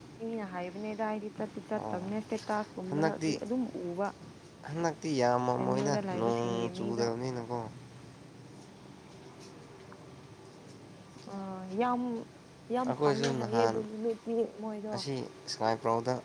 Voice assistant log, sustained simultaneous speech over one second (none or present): present